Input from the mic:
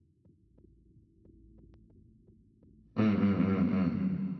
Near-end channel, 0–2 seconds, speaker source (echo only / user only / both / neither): neither